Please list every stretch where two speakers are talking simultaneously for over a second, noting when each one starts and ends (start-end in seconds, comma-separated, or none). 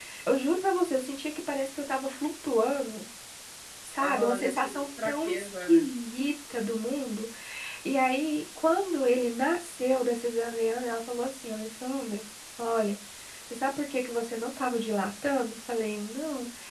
4.0-5.8